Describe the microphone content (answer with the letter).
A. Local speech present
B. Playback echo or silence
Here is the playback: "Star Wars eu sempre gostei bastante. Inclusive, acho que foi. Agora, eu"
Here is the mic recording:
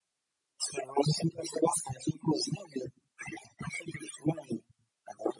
B